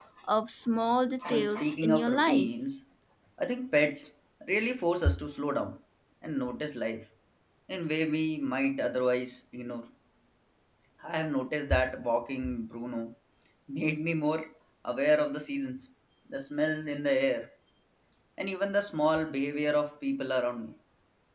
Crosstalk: present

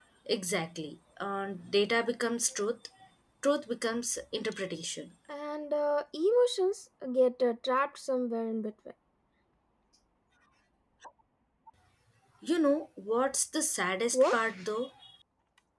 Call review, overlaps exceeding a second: none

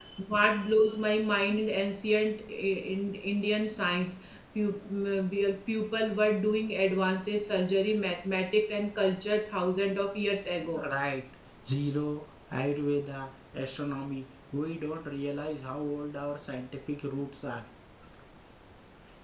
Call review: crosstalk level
none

